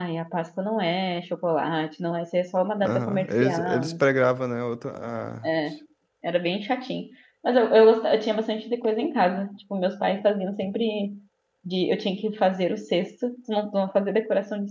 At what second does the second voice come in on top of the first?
2.8 s

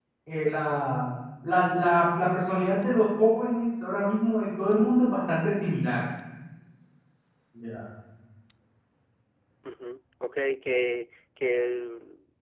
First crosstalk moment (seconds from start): none

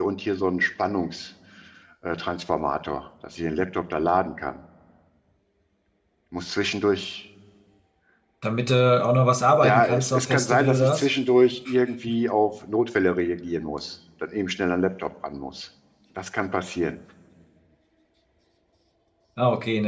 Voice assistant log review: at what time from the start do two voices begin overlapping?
9.6 s

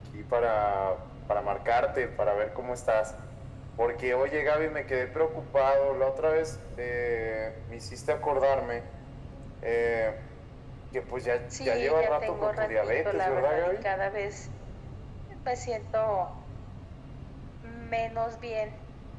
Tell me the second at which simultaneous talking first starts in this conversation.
11.6 s

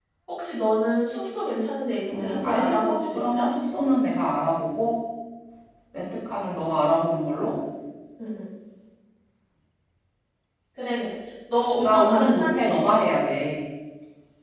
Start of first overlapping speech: 2.1 s

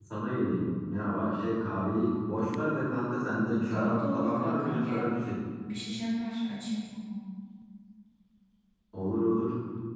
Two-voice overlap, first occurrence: 3.7 s

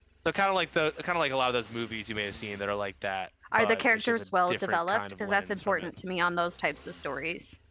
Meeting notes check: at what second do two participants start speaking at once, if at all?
3.5 s

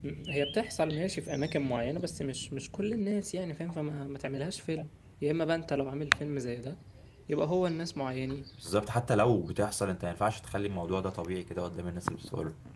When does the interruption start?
none

